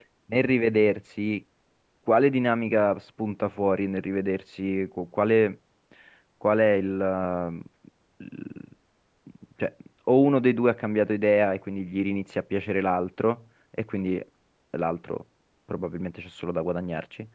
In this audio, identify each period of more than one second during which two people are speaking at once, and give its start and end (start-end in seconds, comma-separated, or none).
none